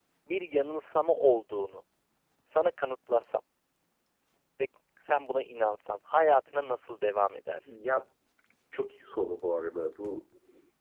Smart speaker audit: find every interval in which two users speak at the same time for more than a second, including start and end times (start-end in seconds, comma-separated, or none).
none